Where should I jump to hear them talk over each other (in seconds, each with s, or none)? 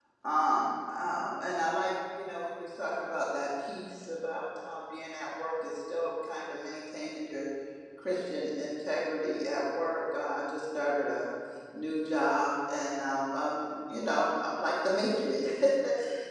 none